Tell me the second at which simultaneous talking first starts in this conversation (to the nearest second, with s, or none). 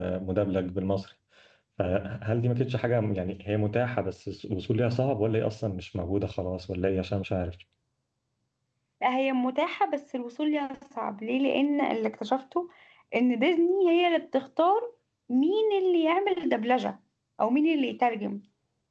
none